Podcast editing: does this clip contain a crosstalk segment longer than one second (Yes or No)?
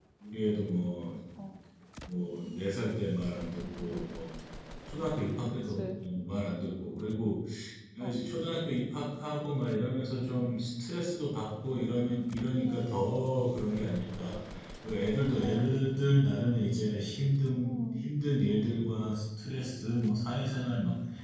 Yes